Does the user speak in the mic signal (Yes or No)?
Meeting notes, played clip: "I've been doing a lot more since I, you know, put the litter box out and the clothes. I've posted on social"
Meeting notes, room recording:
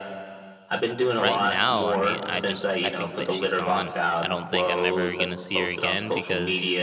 Yes